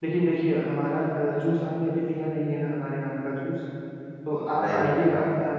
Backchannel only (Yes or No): Yes